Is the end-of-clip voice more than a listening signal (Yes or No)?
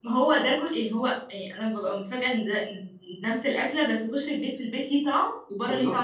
Yes